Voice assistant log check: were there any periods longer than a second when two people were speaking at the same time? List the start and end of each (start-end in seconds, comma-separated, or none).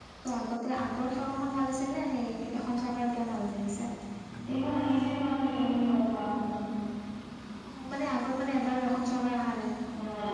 none